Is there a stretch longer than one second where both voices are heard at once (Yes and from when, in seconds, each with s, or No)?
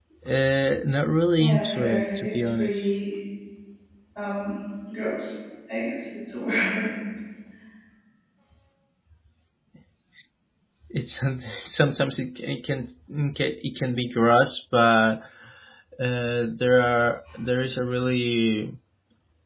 Yes, from 1.4 s